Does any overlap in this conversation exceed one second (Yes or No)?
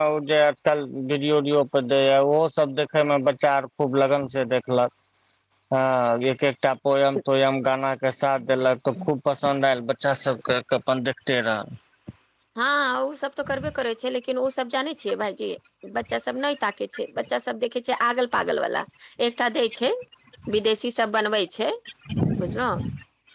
No